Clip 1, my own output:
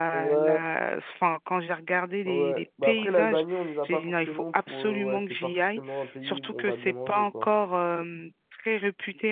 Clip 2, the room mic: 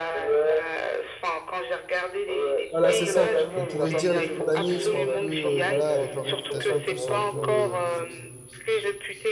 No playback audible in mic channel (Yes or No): No